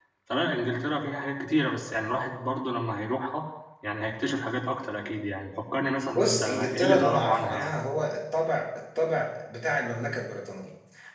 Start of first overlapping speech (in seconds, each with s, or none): 6.1 s